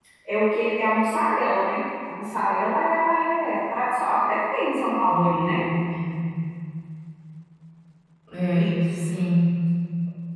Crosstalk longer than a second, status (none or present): none